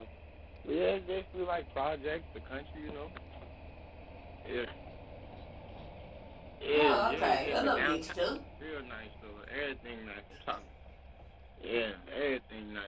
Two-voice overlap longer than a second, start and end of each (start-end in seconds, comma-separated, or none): 6.7-8.1